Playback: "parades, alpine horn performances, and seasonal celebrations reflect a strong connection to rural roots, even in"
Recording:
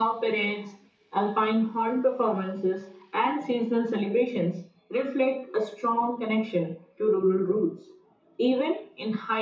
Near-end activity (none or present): none